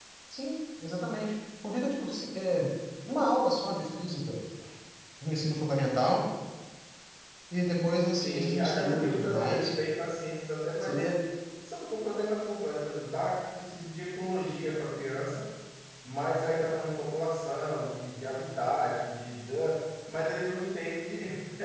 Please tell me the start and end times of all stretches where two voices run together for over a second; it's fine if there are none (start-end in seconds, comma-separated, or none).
8.2-9.7